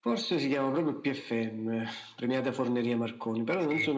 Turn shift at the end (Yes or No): No